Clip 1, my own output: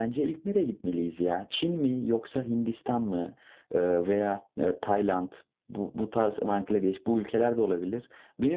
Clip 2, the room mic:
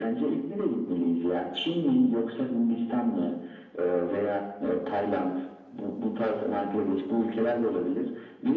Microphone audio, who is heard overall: echo only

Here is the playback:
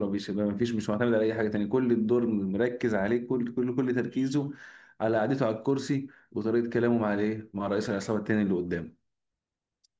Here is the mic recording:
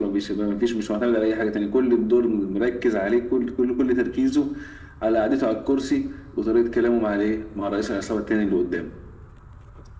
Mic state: echo only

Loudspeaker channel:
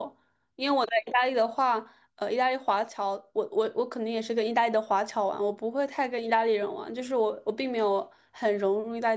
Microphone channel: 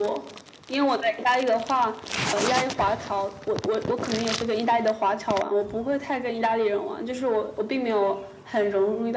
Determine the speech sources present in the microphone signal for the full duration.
echo only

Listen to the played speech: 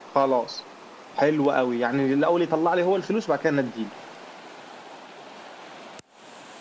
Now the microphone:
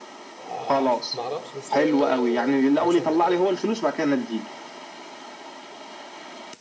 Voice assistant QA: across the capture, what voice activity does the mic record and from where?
both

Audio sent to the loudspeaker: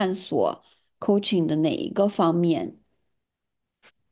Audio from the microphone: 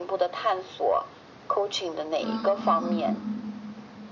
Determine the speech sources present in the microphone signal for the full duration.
both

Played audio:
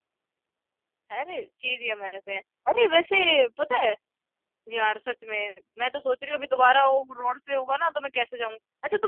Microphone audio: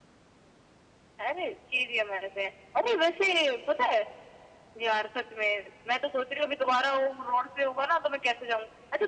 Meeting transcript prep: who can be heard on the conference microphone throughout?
echo only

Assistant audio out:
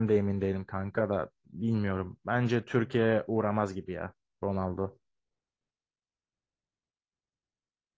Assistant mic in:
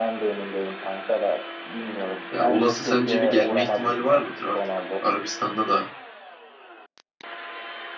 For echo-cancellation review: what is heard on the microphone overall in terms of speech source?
both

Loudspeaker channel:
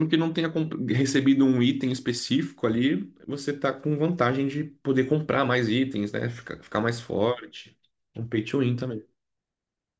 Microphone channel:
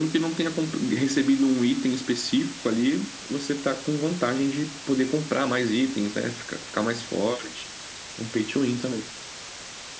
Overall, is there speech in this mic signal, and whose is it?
echo only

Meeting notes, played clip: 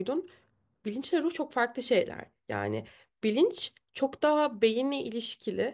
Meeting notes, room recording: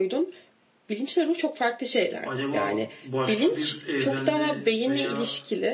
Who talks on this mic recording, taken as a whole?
both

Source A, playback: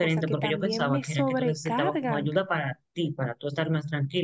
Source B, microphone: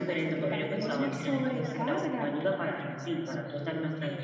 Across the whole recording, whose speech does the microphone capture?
both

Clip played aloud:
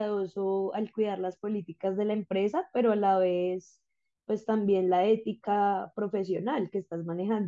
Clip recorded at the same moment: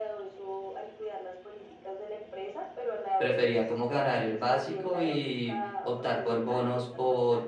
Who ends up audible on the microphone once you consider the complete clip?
both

